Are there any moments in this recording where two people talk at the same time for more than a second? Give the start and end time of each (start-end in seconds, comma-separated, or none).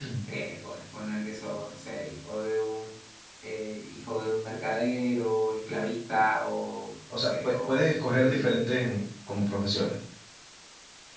7.2-8.6